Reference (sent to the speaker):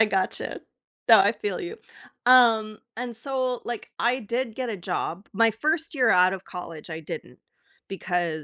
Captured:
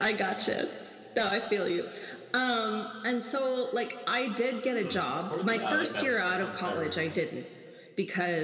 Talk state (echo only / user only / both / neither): both